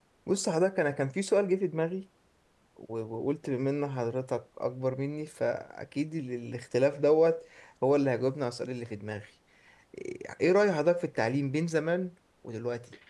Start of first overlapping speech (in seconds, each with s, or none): none